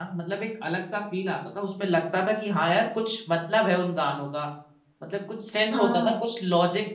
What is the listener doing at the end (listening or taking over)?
listening